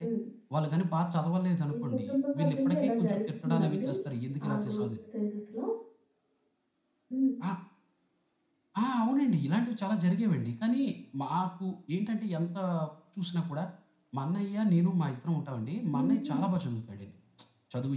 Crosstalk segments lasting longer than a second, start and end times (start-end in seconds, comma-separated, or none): 1.7-3.9